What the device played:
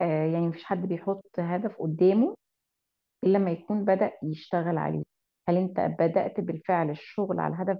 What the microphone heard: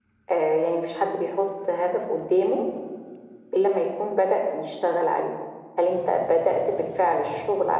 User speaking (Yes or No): No